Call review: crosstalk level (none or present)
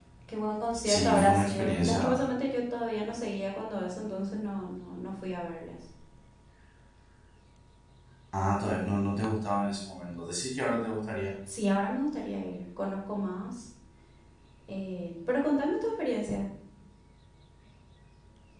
present